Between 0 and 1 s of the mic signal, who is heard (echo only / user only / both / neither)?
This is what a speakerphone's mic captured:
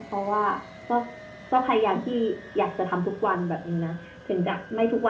user only